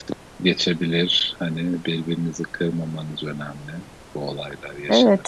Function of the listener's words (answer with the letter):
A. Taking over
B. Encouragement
A